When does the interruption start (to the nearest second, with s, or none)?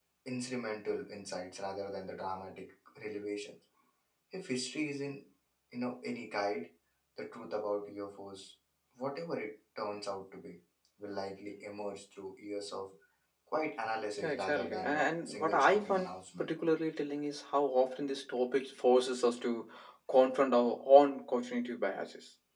14 s